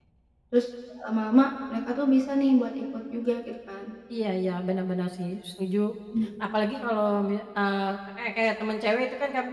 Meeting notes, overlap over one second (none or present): none